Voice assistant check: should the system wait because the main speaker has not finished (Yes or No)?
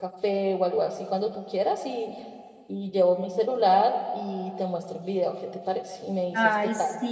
No